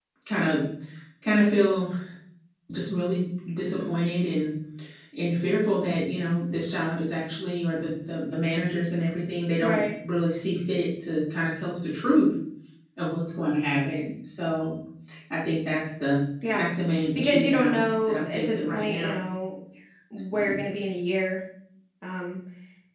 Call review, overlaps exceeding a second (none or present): present